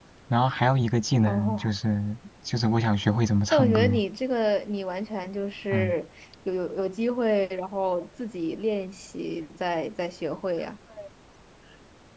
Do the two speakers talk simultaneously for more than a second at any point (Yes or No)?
No